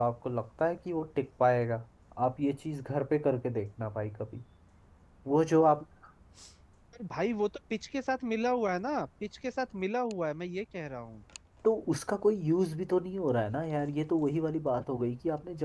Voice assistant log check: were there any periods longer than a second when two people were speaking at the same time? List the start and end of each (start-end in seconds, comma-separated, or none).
none